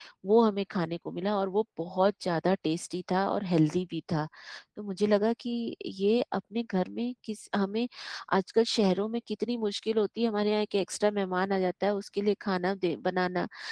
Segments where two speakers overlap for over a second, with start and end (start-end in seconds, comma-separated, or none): none